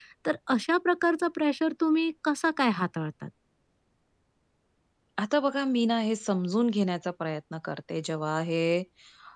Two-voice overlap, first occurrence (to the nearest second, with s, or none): none